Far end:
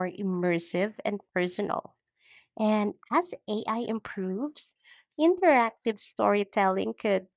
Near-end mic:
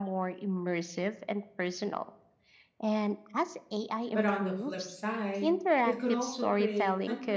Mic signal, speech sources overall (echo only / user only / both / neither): both